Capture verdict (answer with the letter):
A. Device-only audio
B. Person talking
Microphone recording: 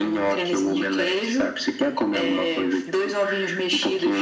A